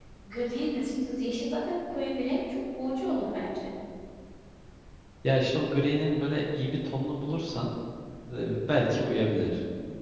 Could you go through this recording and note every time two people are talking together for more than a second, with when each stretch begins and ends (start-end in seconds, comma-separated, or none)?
none